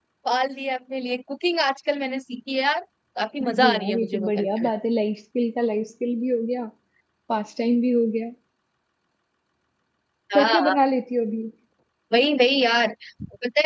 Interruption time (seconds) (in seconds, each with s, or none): 3.4 s